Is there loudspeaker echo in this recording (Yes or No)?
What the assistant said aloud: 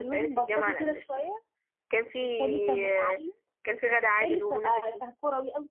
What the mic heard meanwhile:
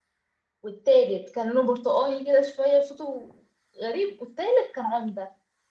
No